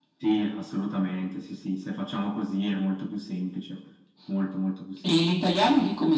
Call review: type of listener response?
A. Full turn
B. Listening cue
A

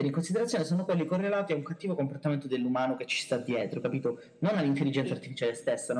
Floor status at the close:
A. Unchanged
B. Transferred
A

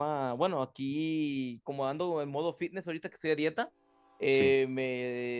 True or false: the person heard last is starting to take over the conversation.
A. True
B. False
B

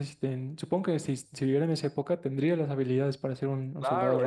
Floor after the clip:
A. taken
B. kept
A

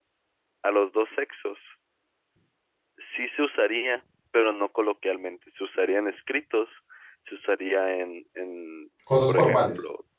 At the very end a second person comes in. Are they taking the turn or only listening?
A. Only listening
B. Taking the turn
A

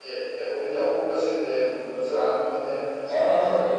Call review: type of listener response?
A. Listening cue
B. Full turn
B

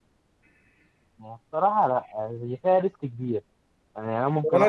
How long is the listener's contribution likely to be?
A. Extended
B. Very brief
A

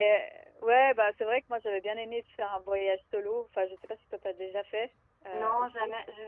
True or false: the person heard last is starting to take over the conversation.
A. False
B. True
B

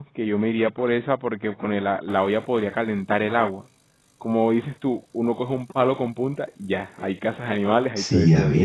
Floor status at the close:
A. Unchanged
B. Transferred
B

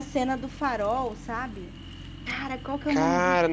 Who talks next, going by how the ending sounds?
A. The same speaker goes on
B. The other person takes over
B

